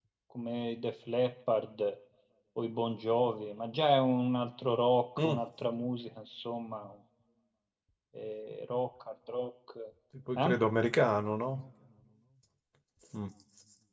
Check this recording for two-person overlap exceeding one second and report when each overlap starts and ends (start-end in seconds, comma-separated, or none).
none